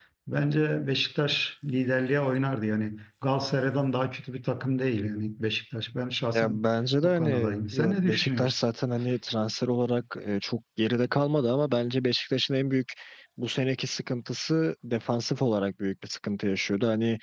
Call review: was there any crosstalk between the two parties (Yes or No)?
Yes